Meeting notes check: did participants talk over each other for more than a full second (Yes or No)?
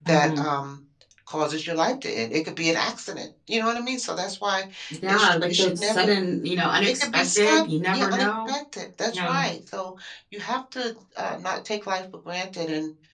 Yes